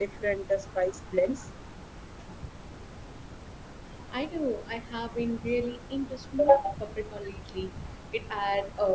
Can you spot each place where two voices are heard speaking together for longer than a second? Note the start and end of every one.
none

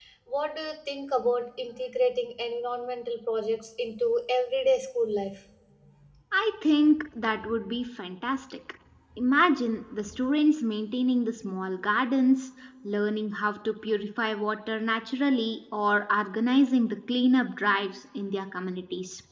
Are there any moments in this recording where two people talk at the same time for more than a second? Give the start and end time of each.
none

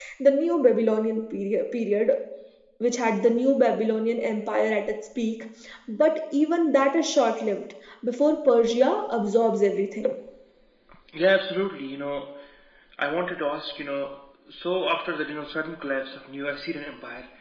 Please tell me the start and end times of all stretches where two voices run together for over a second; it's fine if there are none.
none

